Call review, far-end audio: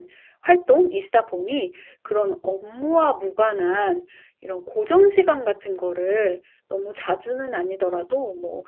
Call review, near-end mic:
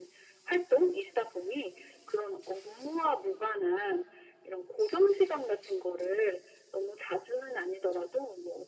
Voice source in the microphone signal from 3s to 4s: echo only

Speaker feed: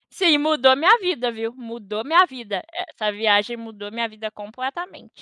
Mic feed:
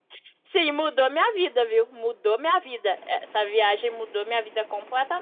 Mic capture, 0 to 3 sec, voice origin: echo only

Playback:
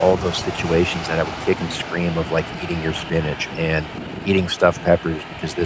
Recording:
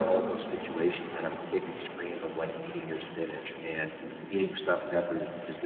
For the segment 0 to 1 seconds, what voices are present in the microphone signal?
echo only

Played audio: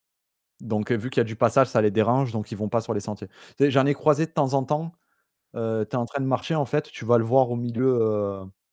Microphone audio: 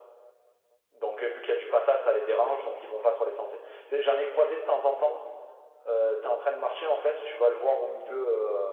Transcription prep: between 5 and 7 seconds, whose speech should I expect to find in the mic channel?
echo only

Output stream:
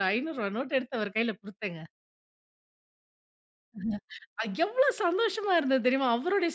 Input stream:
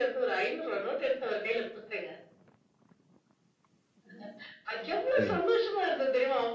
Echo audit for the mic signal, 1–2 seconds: echo only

